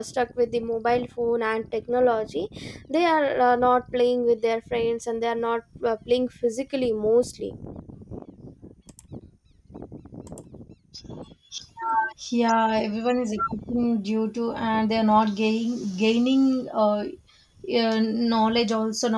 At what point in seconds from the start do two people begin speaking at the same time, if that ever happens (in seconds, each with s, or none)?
none